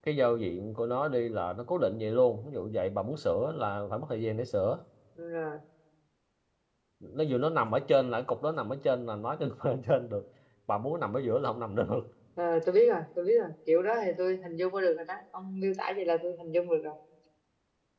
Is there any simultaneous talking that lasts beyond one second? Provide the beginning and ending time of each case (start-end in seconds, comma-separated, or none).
none